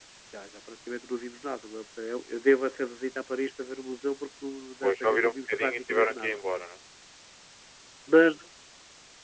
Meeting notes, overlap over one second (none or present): present